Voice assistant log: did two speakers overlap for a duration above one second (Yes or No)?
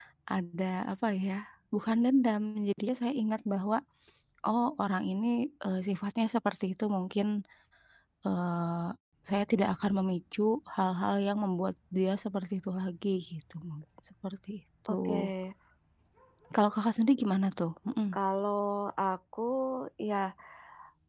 No